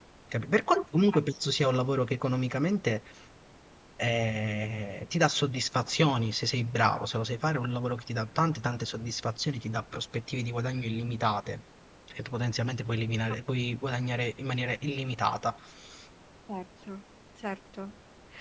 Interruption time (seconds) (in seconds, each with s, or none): none